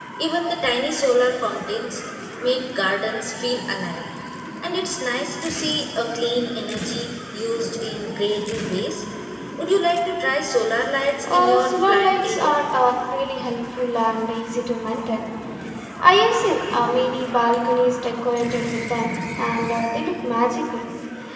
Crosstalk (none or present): present